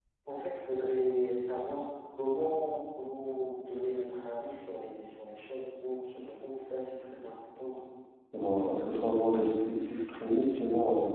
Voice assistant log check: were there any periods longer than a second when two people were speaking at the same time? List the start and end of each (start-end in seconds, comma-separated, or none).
none